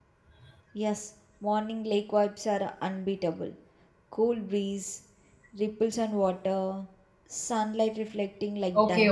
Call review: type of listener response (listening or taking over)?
taking over